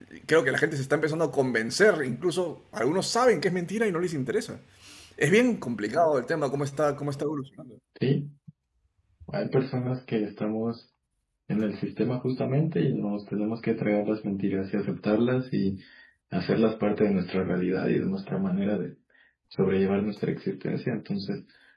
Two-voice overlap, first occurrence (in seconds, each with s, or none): none